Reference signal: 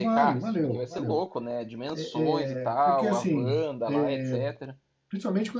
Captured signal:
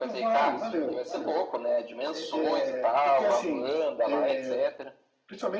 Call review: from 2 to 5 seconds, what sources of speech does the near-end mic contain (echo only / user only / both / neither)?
echo only